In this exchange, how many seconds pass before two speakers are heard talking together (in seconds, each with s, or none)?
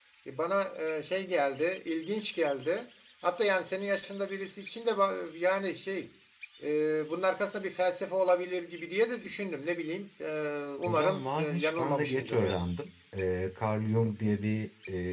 10.8 s